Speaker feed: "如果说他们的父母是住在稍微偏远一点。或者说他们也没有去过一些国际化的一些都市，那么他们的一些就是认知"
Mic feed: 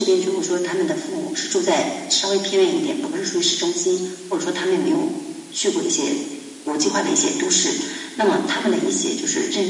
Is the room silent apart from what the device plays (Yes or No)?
Yes